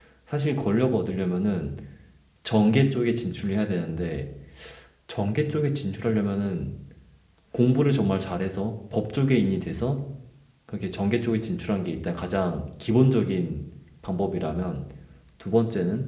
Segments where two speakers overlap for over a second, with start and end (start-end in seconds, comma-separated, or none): none